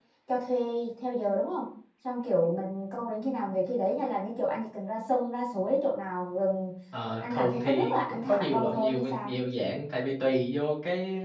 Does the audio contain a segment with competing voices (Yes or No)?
Yes